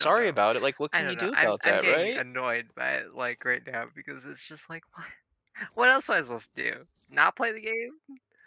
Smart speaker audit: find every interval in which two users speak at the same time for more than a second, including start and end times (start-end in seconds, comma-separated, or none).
0.9-2.2